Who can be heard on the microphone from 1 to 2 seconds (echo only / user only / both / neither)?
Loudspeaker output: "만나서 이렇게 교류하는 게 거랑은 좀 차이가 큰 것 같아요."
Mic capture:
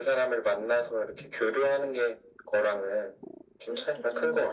echo only